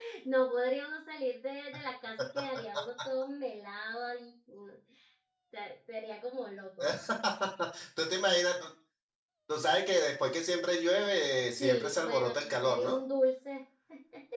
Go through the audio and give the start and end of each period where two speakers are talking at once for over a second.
11.6-13.0

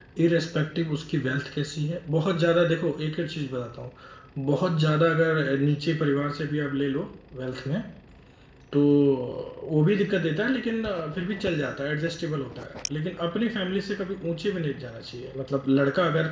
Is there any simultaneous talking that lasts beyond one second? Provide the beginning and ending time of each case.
none

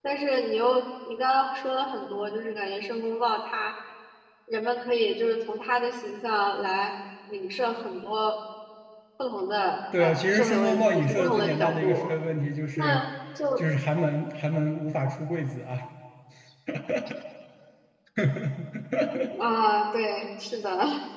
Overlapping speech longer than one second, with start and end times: 10.0-12.1

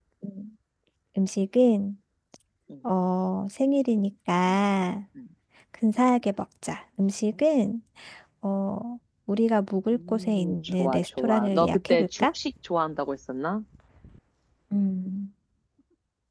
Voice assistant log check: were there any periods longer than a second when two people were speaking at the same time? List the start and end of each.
9.9-12.3

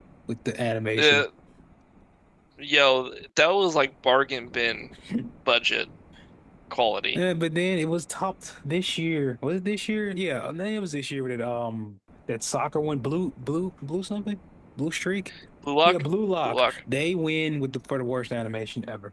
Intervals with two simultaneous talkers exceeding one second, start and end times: none

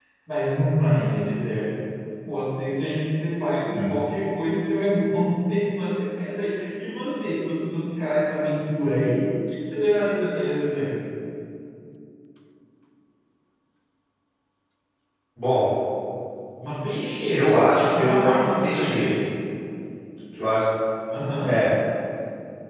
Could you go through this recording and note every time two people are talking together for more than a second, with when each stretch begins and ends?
17.3-19.1

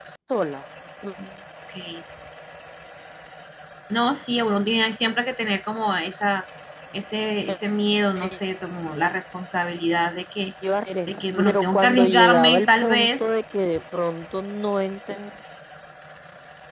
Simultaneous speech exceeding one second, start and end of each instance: 11.3-13.2

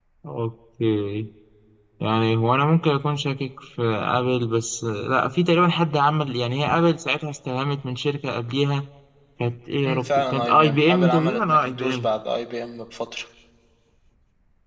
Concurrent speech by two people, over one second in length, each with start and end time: 9.8-12.1

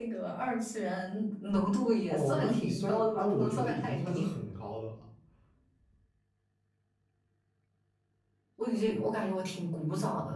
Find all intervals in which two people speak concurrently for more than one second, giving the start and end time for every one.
2.1-4.3

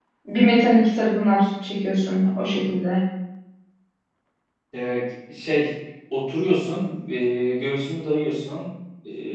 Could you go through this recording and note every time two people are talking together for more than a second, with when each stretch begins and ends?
none

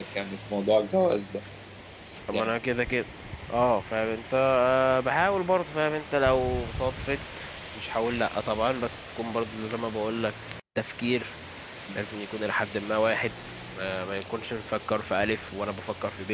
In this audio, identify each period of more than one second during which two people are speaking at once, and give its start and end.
none

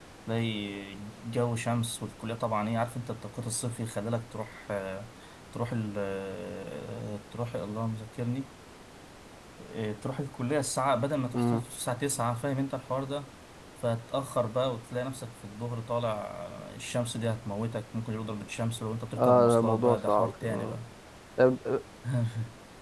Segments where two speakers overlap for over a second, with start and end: 19.2-20.8

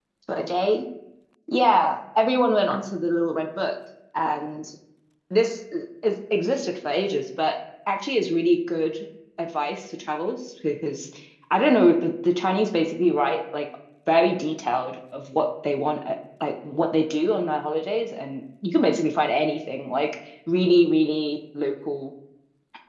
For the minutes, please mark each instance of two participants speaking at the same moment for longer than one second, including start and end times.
none

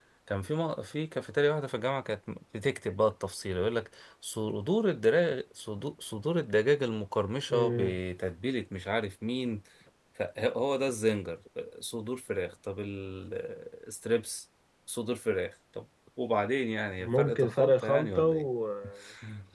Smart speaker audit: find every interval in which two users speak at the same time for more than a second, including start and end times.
17.0-18.5

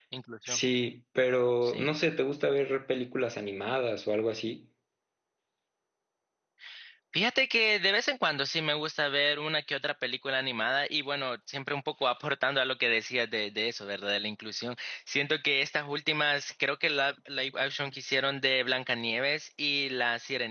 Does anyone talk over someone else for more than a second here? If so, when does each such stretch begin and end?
none

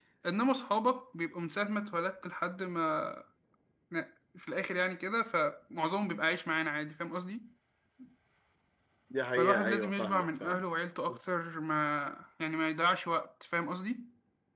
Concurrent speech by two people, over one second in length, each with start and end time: 9.4-10.6

